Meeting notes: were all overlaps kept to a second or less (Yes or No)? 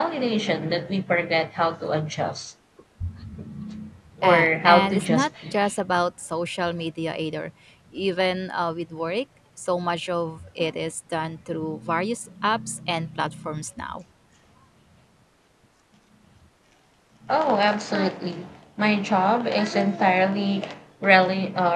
No